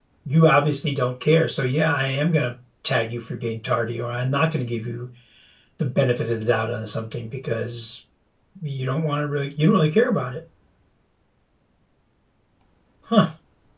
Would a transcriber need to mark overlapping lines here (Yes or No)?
No